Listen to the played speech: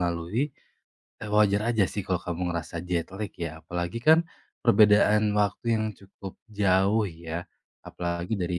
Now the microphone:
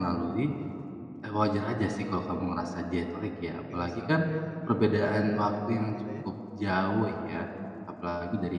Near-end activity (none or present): present